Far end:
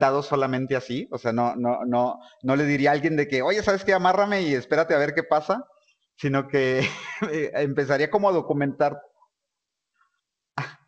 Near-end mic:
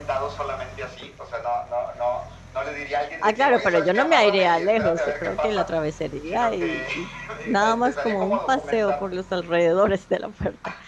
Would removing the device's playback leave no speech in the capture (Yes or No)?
No